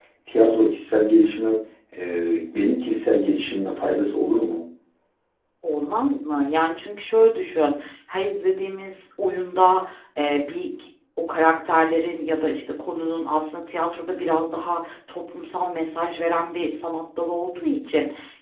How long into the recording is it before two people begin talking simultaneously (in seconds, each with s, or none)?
none